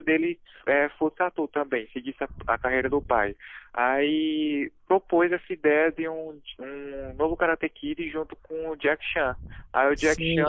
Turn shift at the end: Yes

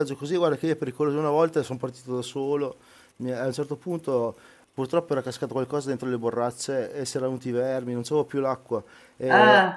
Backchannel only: Yes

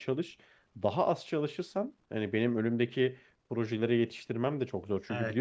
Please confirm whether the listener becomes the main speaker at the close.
No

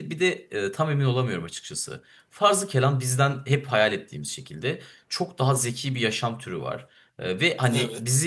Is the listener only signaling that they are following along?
Yes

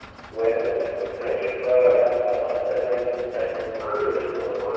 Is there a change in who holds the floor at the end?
Yes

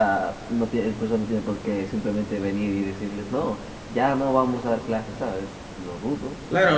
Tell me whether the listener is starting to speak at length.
Yes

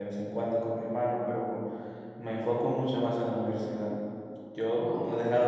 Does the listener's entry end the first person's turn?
No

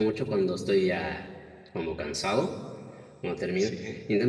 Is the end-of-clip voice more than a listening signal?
No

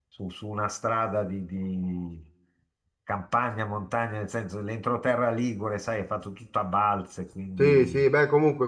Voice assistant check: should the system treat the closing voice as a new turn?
Yes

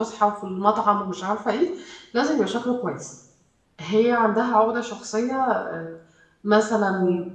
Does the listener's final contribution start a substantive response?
No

